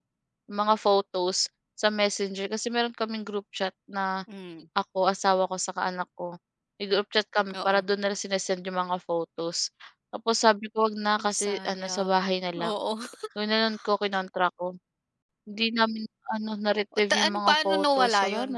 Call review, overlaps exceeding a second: present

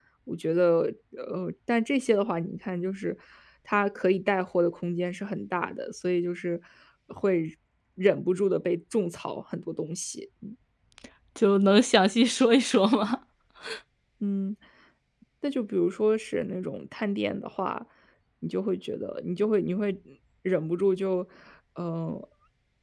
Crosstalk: none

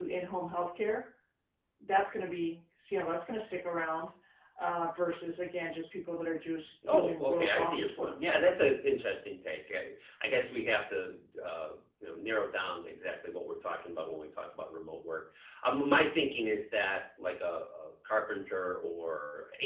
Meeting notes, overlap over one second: present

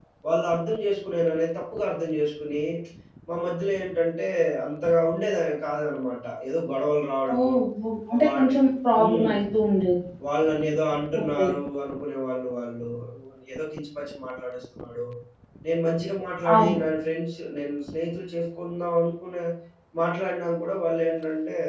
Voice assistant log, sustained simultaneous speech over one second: none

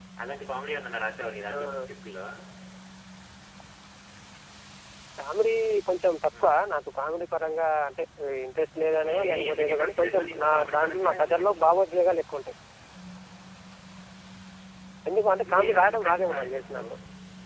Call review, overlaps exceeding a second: present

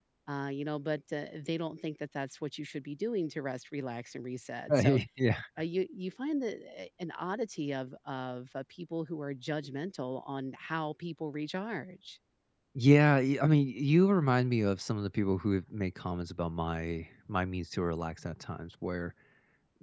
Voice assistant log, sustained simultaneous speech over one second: none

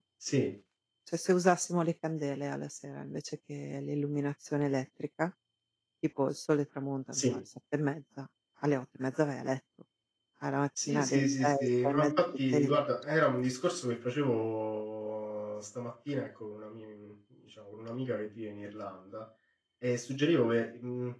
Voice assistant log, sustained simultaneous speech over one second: present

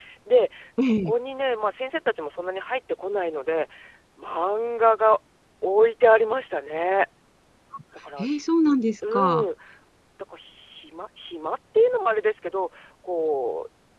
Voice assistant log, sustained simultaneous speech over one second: none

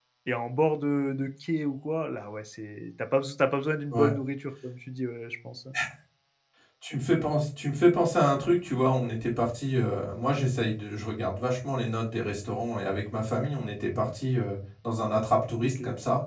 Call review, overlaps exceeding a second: none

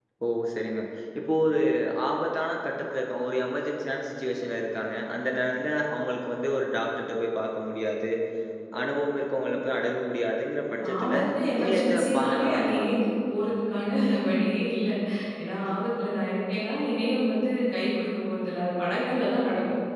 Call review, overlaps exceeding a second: present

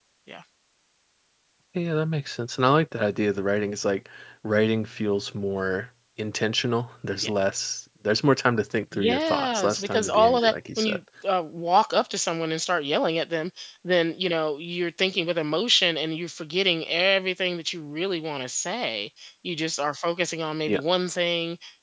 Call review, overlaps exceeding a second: present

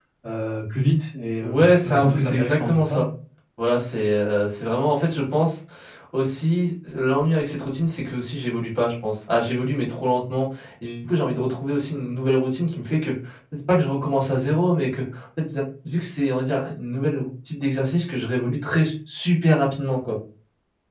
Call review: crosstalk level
present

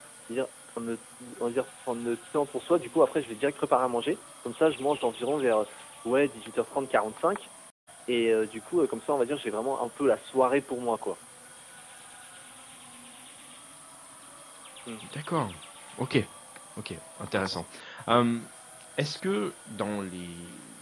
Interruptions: none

